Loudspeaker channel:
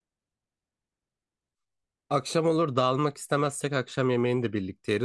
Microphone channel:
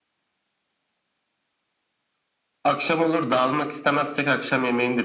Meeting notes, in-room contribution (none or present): none